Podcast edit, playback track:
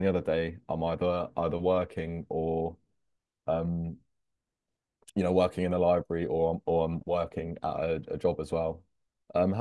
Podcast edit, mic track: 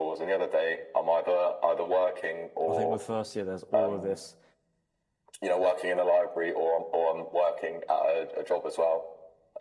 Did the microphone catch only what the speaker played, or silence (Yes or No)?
No